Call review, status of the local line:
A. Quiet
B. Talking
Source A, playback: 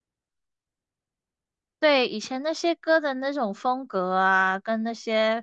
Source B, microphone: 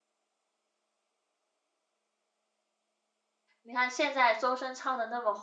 B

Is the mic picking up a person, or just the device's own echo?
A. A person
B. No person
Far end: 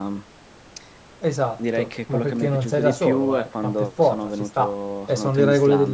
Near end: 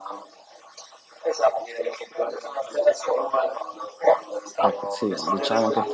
A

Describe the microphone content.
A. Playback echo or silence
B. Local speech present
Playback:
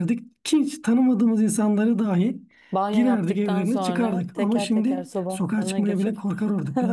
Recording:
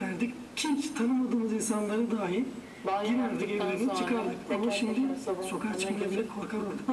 A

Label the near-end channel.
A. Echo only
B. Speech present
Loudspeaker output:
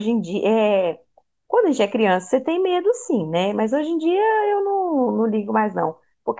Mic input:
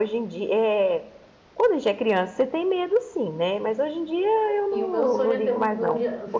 B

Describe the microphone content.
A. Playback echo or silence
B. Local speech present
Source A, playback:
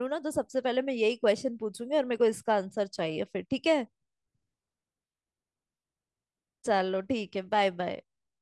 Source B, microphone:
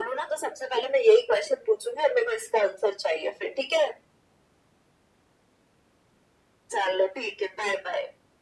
A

